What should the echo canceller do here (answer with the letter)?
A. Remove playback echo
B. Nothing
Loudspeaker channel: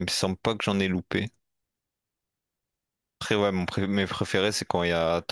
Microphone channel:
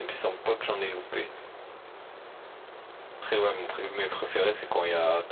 A